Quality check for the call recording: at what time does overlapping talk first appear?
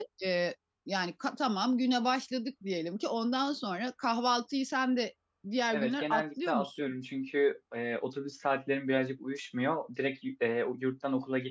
5.7 s

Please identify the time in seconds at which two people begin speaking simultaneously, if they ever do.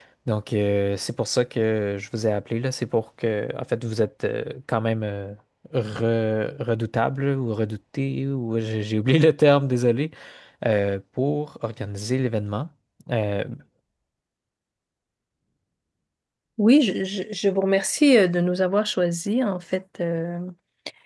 none

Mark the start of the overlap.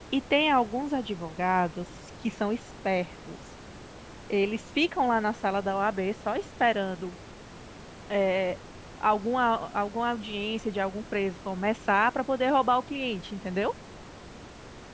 none

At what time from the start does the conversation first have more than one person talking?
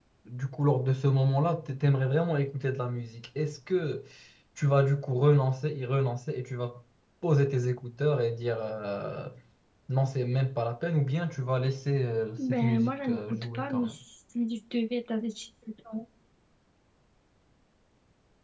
12.4 s

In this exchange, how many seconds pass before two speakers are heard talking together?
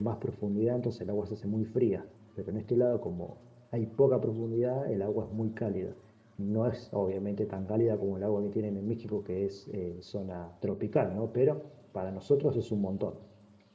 none

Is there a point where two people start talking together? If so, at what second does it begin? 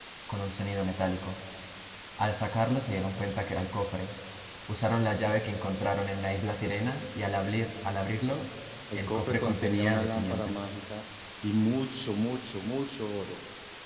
9.0 s

